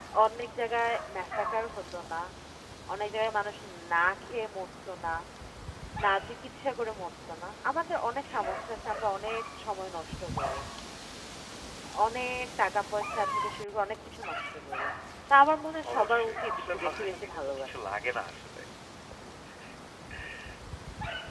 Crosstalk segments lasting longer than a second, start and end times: 15.9-17.7

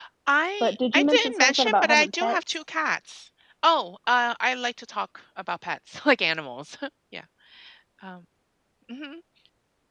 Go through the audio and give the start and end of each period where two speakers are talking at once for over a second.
0.6-2.4

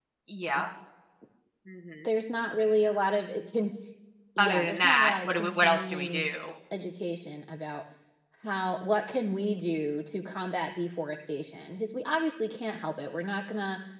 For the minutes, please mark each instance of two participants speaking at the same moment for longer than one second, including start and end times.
4.4-6.2

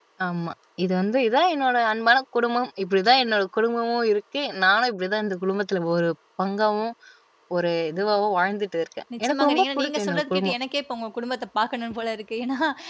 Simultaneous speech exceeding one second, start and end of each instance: 9.2-10.5

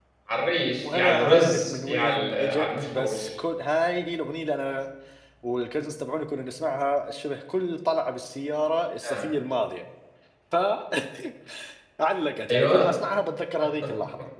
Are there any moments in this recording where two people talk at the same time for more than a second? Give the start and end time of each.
0.8-3.3

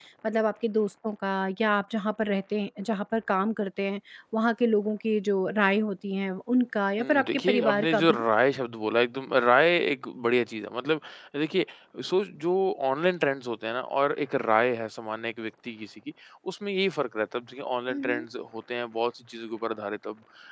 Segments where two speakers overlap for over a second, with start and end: 7.0-8.2

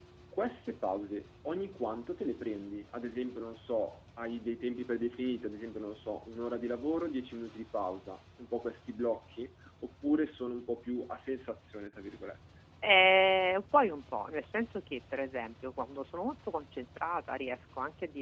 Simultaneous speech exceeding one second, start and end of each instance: none

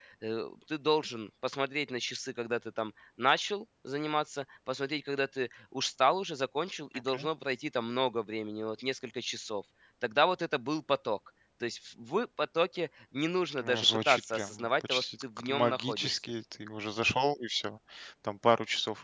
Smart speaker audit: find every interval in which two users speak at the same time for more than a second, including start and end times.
13.6-16.2

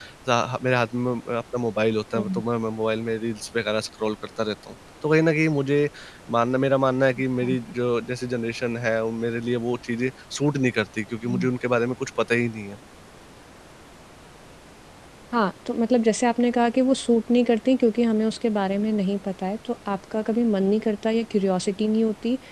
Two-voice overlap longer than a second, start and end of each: none

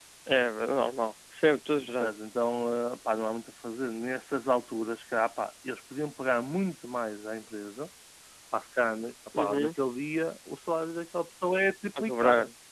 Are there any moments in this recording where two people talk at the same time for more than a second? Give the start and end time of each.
none

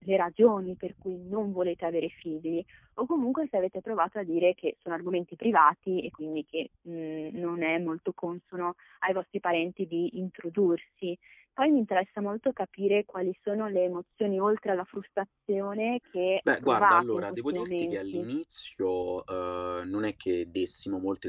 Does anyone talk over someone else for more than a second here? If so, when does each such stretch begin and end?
16.6-18.3

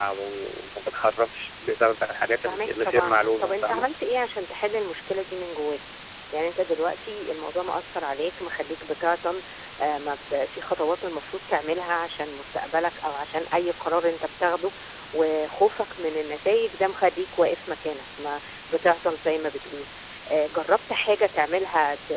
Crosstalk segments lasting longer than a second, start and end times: 2.4-3.8

